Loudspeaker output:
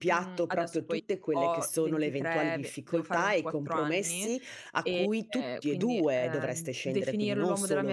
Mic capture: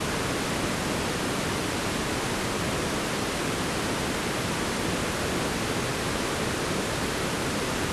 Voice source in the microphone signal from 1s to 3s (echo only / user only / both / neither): neither